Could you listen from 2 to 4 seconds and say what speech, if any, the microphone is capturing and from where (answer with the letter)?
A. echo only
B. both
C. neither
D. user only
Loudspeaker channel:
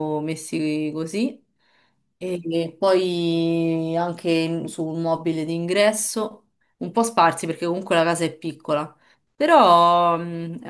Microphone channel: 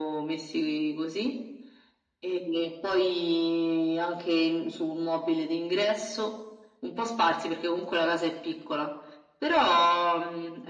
A